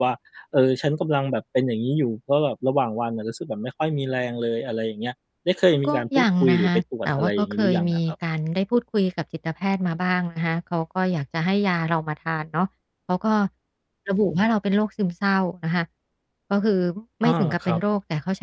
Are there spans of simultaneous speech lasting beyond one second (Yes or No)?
Yes